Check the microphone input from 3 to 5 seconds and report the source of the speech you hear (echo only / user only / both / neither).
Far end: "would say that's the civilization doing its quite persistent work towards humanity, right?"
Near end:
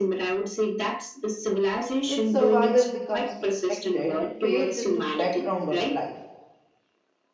both